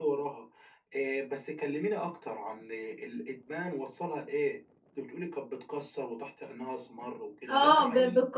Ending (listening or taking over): taking over